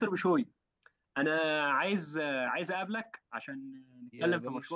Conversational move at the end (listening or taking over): taking over